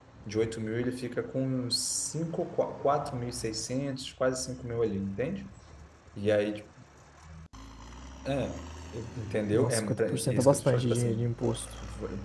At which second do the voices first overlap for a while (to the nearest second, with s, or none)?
10 s